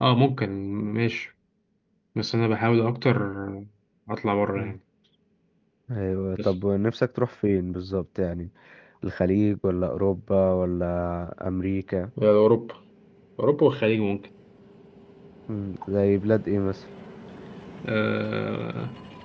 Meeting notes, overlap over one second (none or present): none